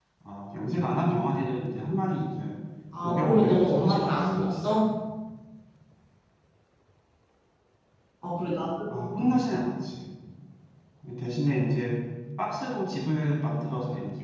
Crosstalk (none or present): present